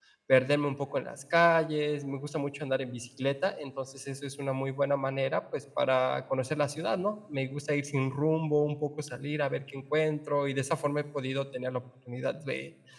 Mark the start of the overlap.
none

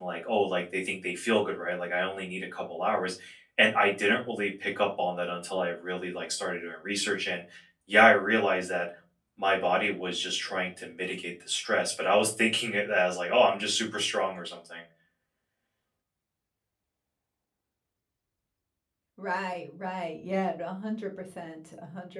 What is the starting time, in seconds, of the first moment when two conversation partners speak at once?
none

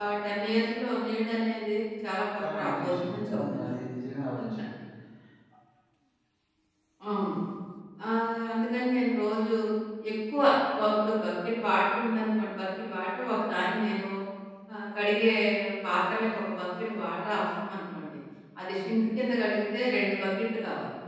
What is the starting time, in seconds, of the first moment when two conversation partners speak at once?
2.4 s

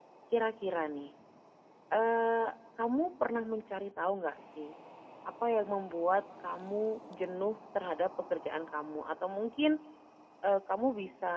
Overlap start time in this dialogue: none

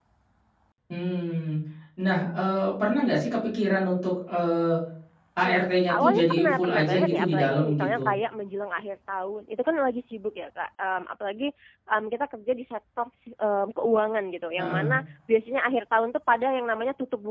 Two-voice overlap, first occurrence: 5.4 s

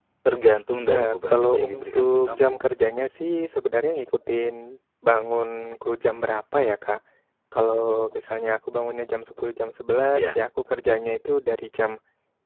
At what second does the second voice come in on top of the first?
0.9 s

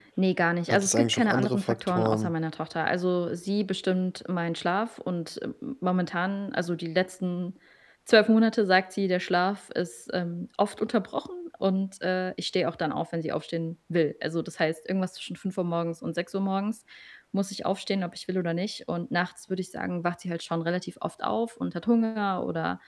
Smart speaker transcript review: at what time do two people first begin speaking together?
0.7 s

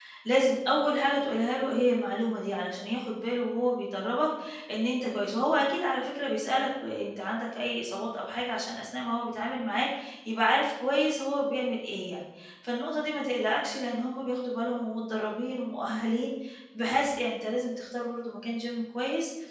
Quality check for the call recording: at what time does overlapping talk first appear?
none

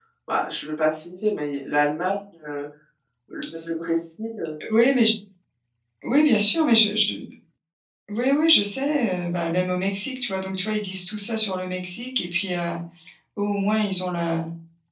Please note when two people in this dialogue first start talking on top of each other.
none

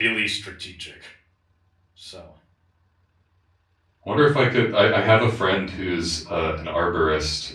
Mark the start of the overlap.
none

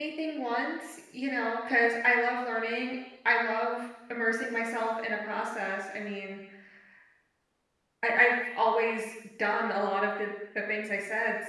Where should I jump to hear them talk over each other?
none

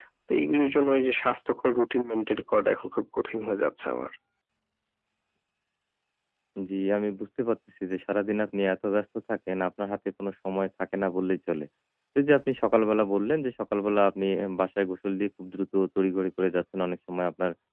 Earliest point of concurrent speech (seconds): none

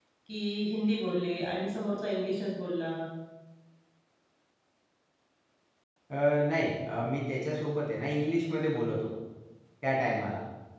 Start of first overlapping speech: none

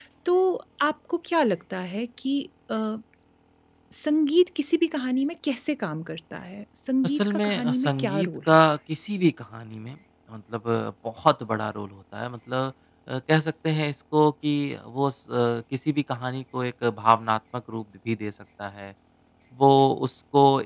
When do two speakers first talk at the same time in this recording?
7.0 s

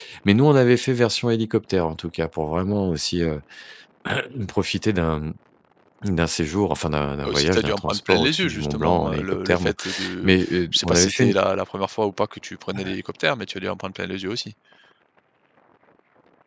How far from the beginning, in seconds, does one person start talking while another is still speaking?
7.2 s

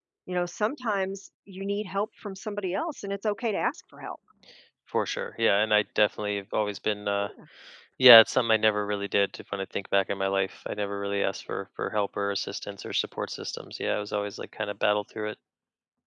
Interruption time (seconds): none

